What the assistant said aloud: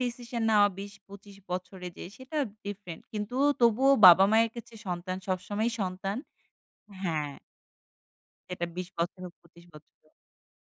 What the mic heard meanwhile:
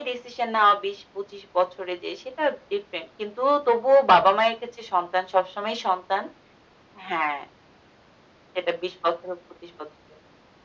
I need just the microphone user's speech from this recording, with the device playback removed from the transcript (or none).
none